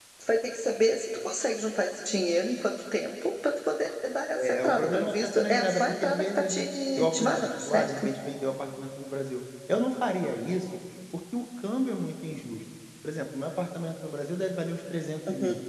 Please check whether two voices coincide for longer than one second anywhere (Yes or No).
Yes